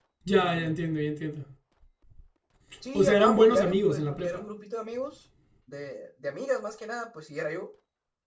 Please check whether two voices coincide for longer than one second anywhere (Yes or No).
Yes